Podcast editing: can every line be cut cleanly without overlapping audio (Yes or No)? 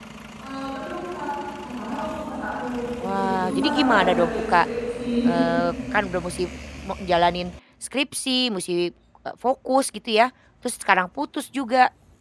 No